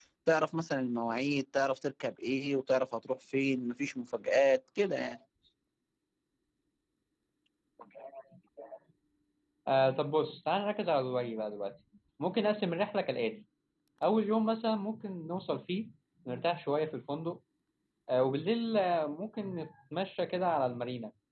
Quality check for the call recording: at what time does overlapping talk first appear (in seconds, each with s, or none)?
none